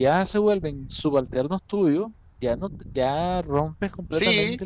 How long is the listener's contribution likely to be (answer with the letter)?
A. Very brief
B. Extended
B